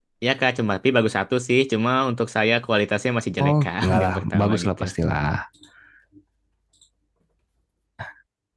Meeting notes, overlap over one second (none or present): present